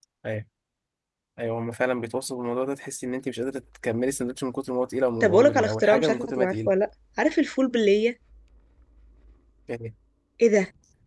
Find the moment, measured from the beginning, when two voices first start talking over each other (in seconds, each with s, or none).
5.2 s